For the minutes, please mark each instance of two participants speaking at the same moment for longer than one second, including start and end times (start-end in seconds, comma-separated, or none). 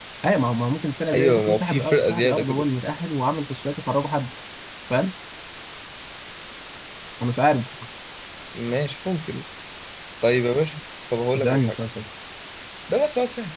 1.1-2.6